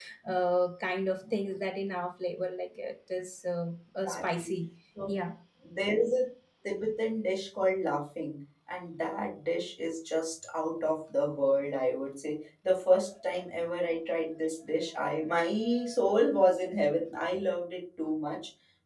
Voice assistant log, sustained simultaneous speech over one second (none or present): none